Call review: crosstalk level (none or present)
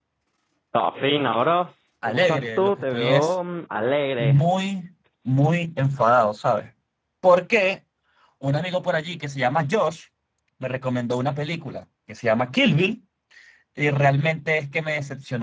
present